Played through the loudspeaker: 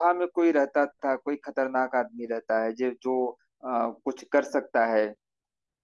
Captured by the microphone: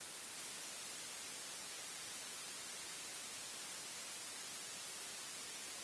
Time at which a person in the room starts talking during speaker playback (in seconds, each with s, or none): none